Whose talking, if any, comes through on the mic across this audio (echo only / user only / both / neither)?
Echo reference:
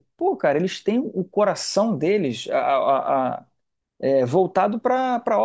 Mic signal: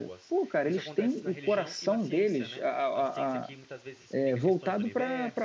both